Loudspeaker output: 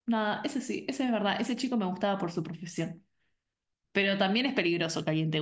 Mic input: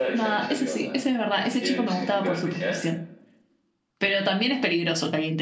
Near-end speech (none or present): present